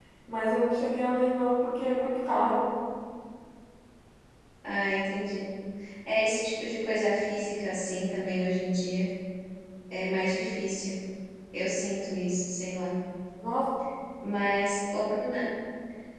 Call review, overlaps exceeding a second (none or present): none